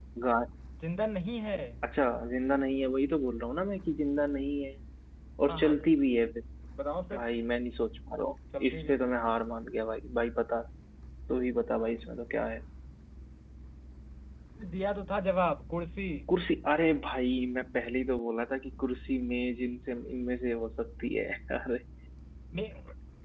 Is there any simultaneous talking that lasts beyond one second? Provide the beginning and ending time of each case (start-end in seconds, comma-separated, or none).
none